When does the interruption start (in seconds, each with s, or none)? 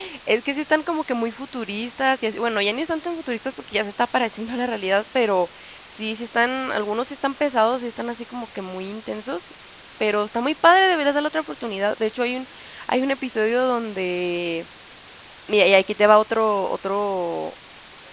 none